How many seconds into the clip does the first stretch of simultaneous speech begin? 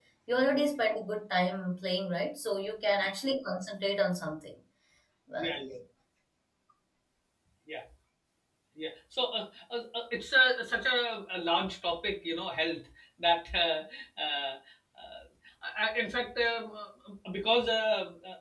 none

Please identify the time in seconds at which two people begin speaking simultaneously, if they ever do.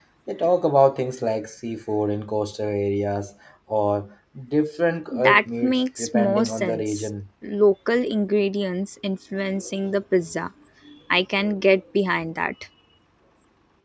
5.1 s

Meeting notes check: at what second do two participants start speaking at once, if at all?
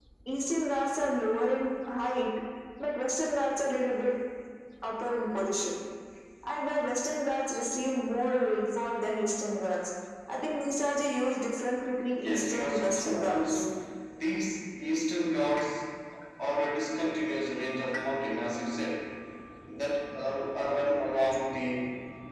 12.1 s

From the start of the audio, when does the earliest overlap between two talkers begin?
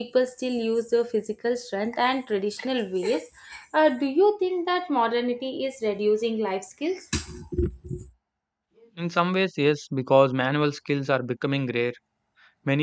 none

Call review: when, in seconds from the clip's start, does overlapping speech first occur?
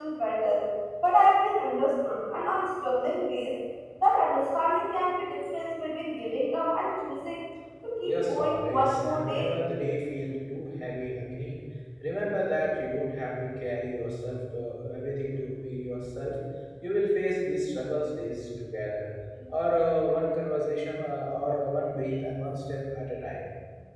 8.0 s

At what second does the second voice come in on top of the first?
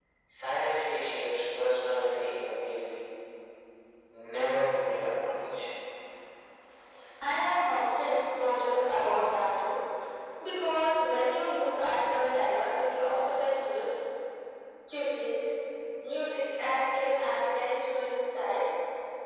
none

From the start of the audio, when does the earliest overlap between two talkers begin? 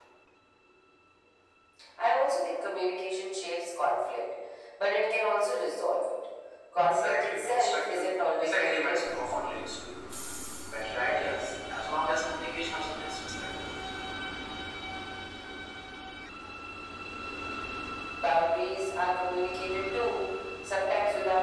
6.8 s

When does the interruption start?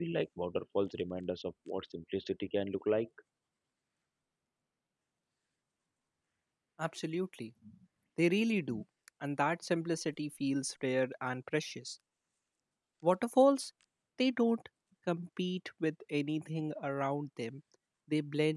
none

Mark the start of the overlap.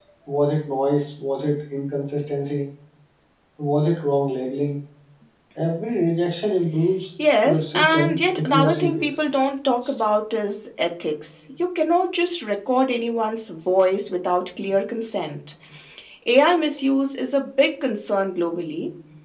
7.4 s

